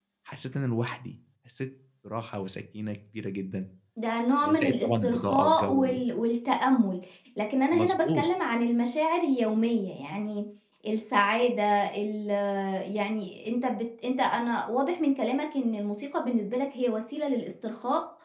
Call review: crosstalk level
present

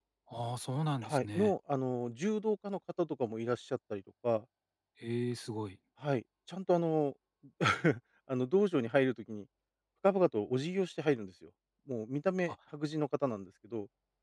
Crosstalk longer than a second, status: none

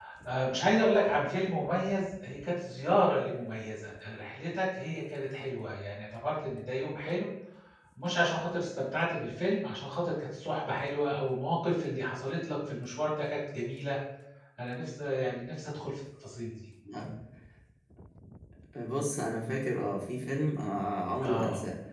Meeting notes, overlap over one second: none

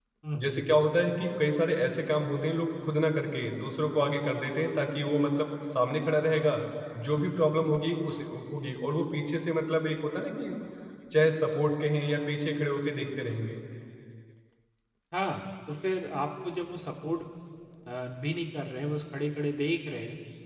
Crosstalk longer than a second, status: none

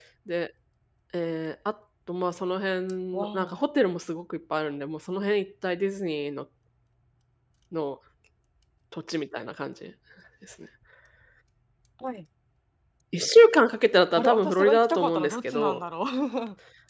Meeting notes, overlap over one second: present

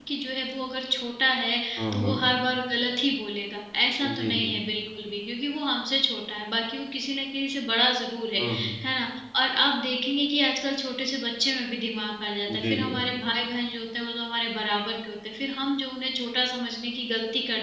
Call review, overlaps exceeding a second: none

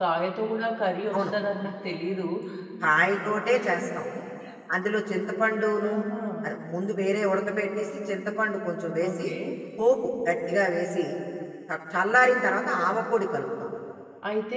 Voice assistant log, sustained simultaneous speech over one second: none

